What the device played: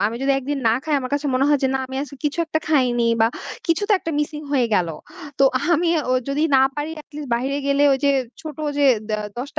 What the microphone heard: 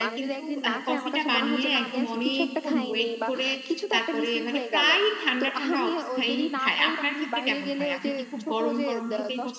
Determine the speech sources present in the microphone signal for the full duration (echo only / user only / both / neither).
both